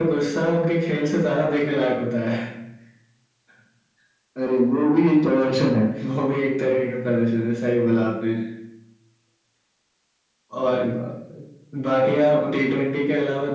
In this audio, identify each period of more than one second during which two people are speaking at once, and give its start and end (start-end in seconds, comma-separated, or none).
none